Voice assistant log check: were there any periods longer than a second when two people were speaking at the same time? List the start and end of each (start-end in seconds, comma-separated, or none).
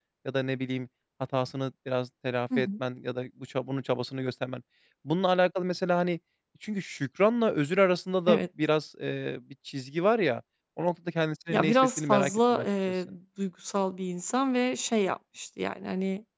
11.5-13.0